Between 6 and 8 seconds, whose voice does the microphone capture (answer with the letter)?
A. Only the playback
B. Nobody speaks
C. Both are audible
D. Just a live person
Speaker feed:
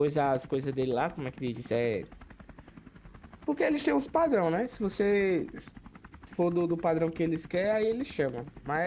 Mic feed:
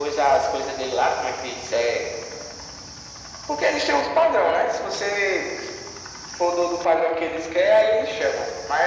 A